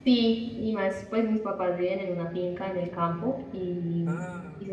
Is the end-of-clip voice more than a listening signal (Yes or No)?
No